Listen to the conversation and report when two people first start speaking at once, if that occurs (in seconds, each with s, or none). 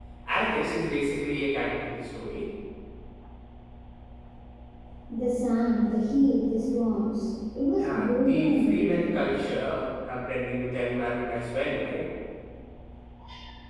7.8 s